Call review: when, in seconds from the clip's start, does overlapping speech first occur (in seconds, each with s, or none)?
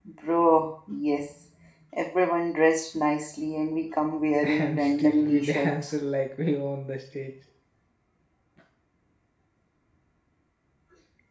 4.4 s